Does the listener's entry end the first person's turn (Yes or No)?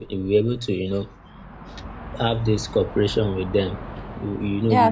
Yes